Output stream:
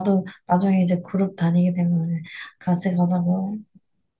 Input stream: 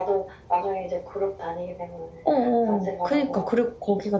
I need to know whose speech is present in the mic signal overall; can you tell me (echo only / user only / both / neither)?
both